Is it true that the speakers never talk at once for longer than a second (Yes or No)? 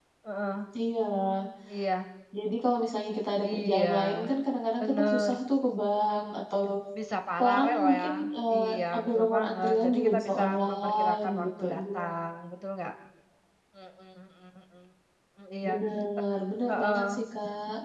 No